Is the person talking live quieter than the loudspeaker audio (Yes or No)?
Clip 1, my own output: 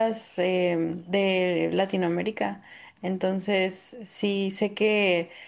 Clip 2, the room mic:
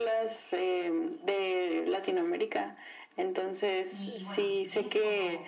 Yes